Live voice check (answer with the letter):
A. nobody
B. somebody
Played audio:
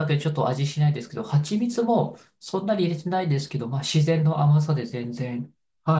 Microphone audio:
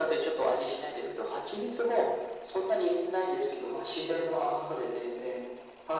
A